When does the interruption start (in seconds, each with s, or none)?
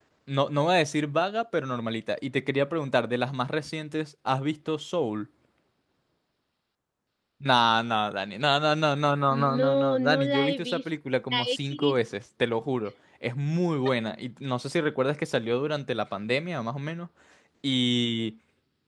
9.3 s